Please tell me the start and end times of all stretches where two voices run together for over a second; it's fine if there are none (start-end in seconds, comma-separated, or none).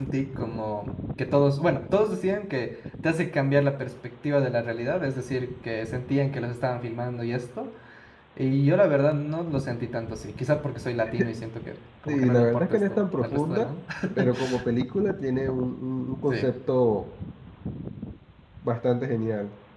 12.0-13.7